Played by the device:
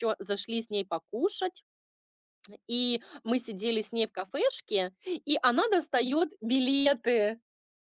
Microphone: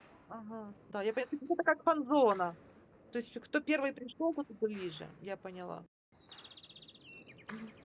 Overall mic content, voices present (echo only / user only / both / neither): user only